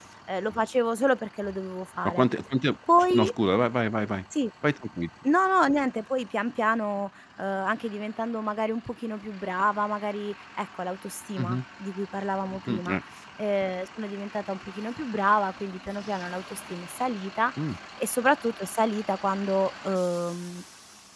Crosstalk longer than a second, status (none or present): none